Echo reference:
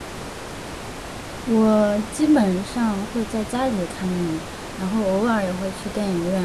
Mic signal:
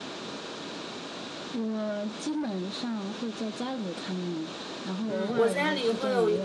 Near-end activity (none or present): present